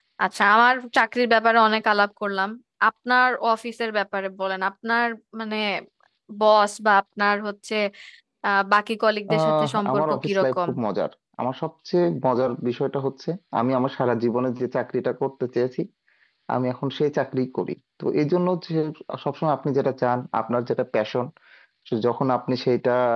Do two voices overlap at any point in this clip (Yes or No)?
Yes